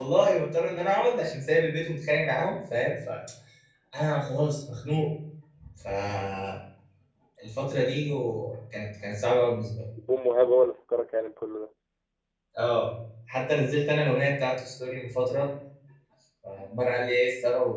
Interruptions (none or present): none